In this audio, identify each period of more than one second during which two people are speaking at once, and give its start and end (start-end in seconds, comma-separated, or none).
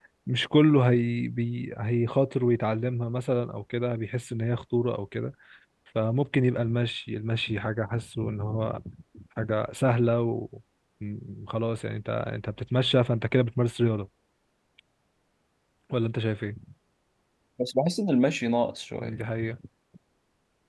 none